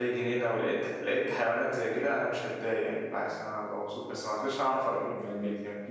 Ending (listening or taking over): taking over